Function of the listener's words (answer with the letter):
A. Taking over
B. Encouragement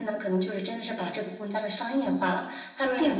B